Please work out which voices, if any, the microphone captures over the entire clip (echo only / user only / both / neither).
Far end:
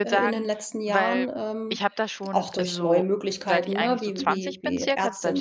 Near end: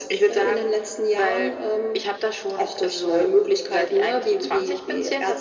echo only